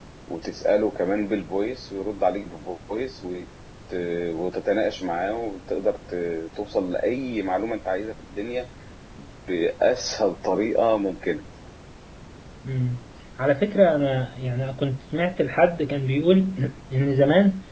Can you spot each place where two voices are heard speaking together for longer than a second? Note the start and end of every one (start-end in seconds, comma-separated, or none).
none